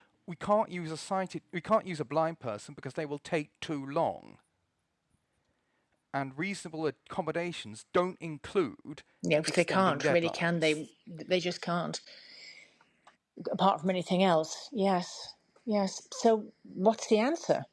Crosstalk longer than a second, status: present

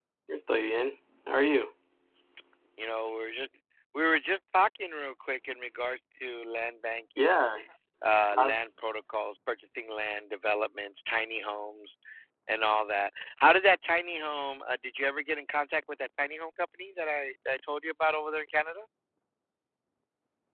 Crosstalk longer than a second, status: none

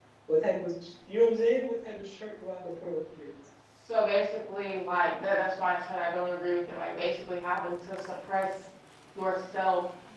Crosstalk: none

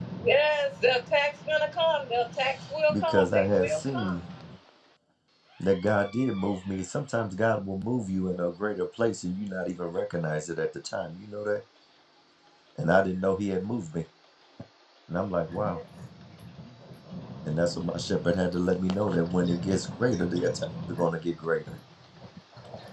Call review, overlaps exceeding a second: present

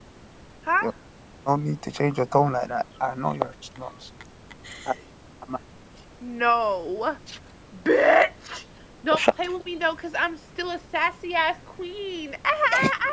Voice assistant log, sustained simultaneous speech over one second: none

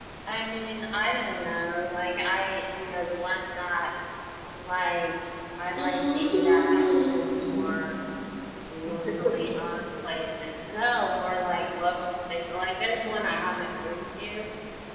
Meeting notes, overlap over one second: present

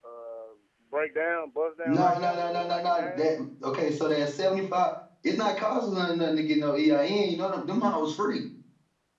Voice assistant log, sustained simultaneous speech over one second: present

